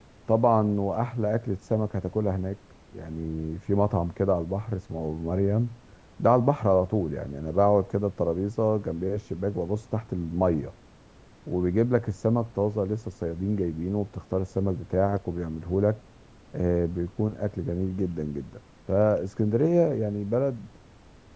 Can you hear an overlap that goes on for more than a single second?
No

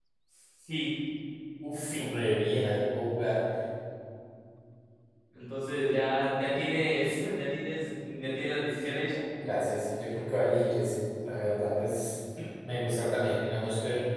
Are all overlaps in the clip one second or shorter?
Yes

